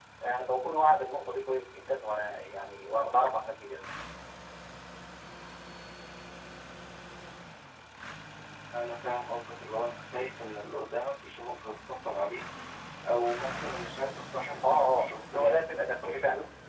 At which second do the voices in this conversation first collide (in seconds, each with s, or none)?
14.6 s